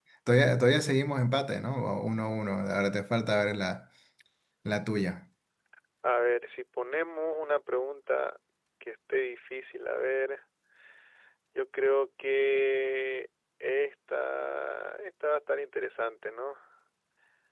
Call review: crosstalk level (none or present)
none